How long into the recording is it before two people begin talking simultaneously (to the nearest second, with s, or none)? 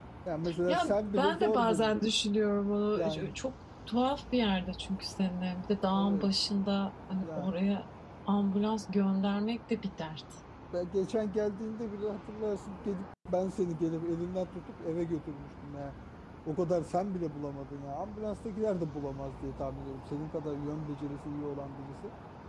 1 s